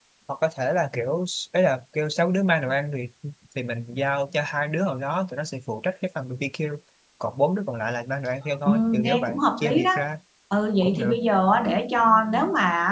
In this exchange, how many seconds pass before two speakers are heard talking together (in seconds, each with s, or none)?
8.7 s